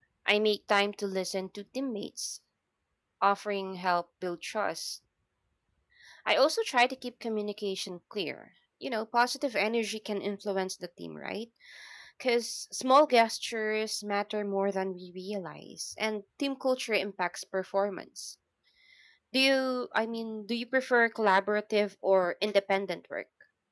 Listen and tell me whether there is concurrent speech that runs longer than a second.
No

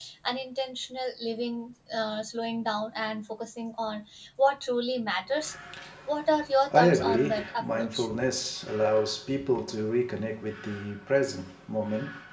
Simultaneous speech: Yes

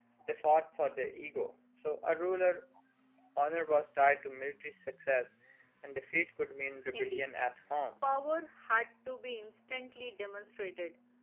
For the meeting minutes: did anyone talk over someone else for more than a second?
No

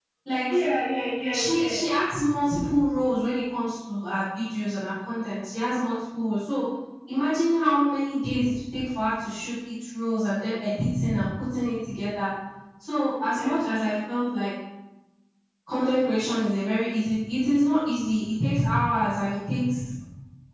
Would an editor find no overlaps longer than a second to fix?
Yes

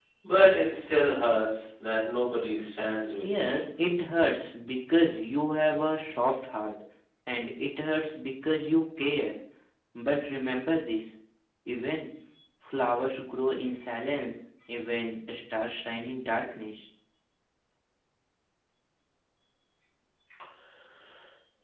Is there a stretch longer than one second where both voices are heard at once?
No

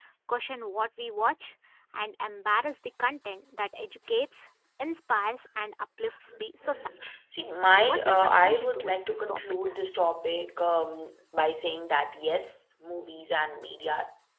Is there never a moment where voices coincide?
No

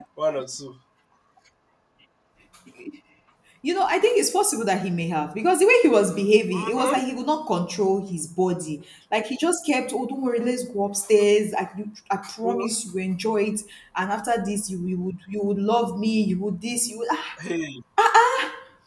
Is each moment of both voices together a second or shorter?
Yes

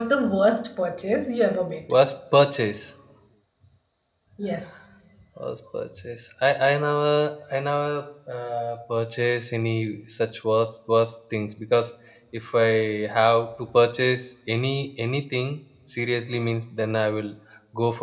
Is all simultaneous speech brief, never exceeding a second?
Yes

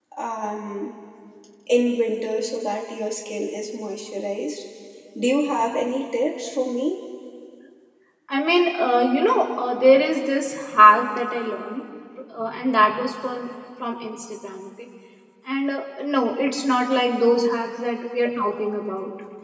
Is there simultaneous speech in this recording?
No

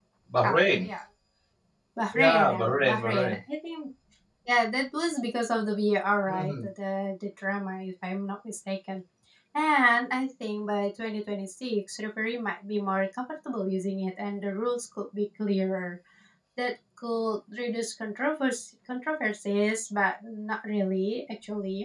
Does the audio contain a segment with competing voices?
Yes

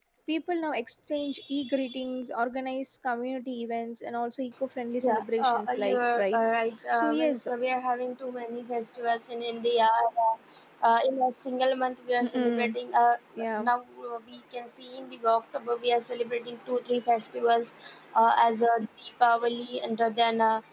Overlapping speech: Yes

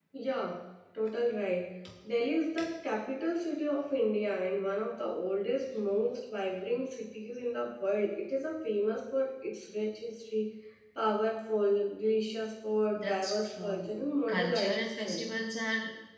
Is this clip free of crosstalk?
No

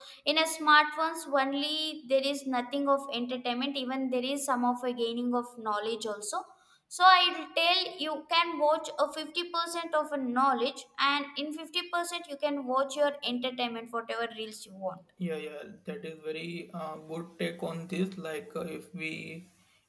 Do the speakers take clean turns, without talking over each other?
Yes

